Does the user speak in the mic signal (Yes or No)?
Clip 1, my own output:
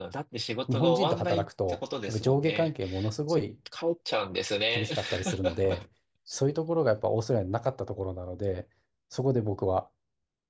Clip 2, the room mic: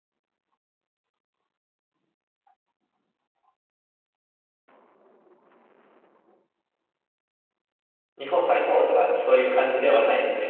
Yes